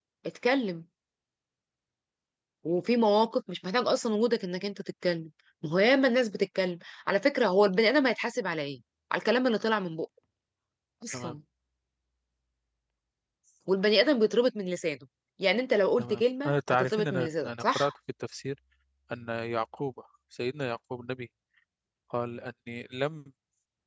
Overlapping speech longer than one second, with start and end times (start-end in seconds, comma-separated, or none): 16.0-17.9